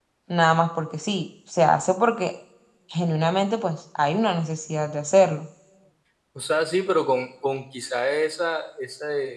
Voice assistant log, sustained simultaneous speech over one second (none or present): none